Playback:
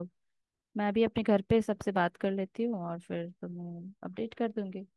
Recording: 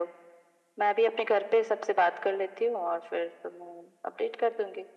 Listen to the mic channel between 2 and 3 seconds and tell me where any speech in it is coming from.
echo only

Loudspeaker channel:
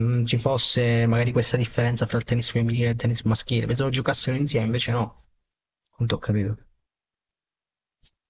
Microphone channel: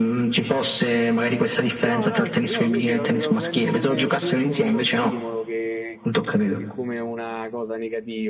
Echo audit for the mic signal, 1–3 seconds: both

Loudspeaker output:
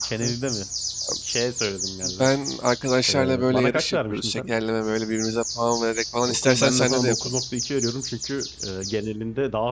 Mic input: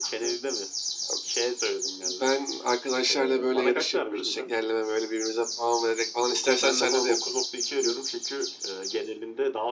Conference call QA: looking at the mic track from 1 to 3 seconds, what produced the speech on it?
echo only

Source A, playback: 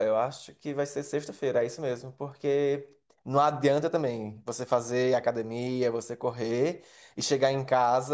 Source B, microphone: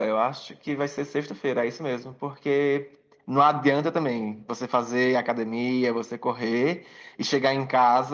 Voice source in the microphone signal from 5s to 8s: echo only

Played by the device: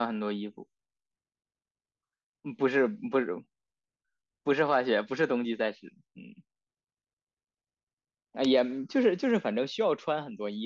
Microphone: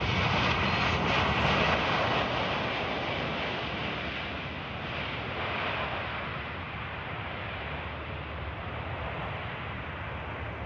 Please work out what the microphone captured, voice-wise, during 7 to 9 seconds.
neither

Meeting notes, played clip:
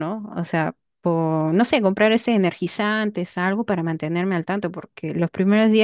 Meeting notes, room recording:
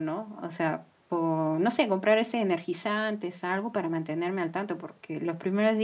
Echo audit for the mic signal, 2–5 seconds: echo only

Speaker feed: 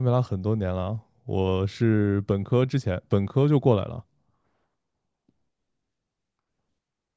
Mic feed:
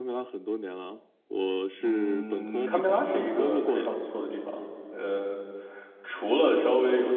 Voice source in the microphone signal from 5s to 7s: user only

